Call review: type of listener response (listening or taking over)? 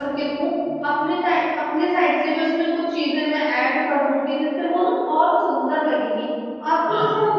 listening